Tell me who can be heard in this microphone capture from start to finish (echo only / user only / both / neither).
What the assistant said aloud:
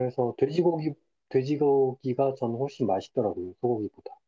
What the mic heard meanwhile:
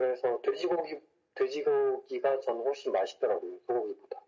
echo only